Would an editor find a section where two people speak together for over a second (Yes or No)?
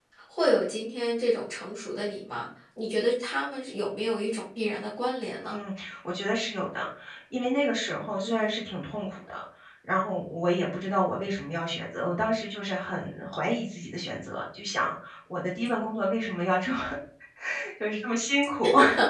No